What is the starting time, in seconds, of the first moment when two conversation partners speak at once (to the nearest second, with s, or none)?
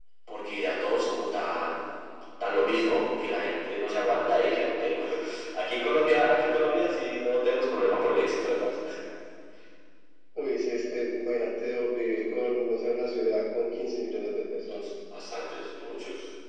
none